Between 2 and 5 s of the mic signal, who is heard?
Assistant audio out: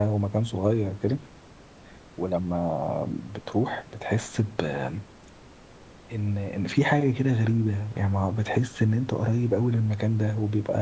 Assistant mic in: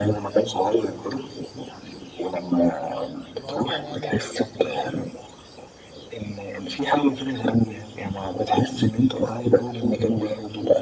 both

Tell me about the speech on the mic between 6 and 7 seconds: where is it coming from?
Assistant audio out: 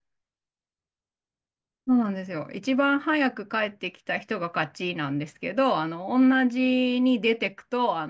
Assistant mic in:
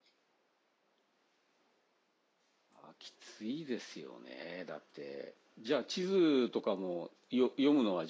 user only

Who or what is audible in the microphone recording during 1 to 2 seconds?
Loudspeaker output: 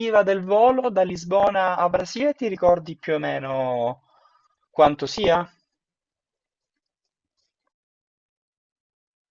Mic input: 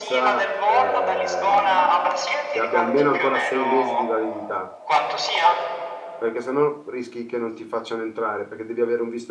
both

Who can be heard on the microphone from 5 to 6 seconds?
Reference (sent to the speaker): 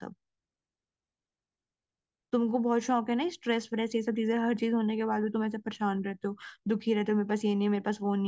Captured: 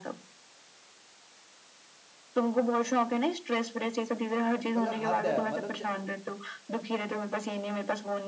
both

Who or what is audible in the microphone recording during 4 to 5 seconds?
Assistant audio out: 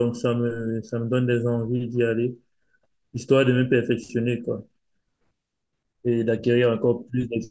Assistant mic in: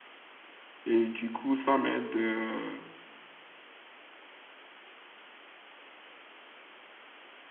neither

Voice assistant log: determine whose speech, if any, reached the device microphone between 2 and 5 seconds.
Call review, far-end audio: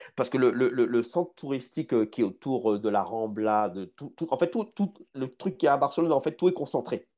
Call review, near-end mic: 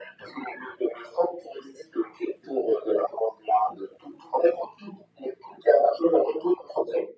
echo only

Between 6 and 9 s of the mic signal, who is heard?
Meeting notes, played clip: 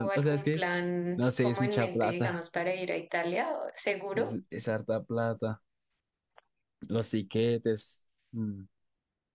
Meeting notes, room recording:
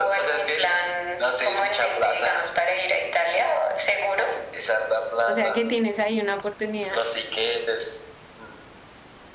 both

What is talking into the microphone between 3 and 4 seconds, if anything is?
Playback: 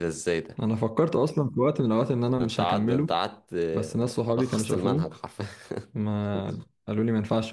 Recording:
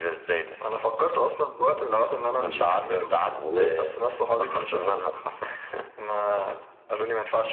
both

